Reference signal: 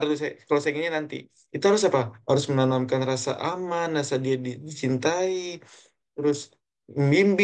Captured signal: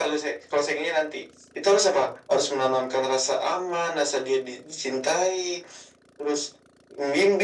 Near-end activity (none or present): none